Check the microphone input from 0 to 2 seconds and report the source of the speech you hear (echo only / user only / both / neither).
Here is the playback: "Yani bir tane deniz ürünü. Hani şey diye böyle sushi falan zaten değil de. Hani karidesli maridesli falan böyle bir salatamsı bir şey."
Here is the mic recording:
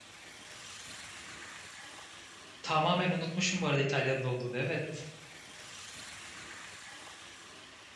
neither